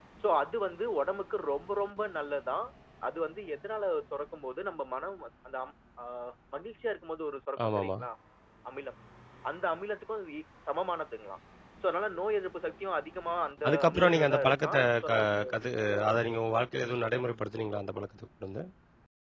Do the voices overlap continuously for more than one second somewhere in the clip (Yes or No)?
Yes